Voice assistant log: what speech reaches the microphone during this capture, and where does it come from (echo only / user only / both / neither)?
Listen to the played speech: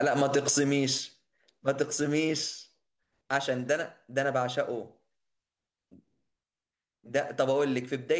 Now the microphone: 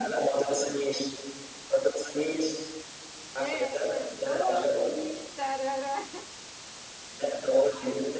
both